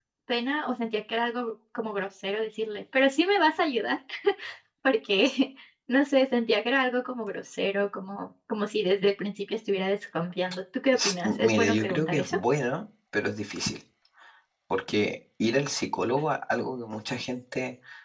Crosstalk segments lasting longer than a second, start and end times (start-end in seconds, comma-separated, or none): 10.9-12.4